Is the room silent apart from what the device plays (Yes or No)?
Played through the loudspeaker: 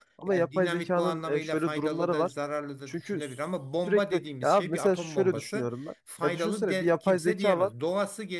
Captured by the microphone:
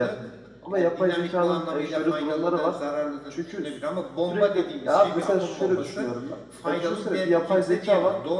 Yes